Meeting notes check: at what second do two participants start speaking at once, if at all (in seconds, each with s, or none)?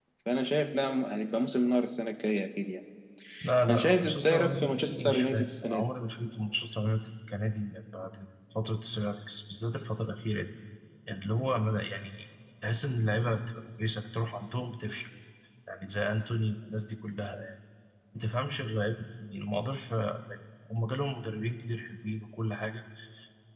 3.7 s